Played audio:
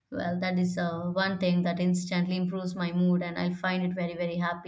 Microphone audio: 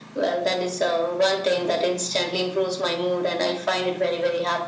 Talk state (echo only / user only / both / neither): echo only